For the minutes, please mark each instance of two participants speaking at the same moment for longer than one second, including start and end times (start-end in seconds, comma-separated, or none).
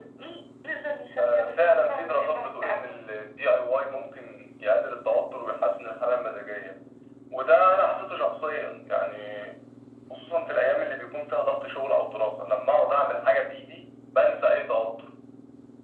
1.2-3.0